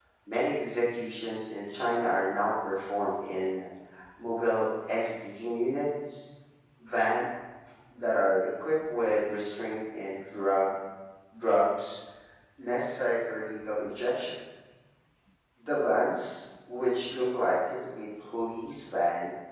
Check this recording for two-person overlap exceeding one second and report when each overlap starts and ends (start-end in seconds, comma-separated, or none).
none